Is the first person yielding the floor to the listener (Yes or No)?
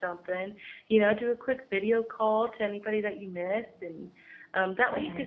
No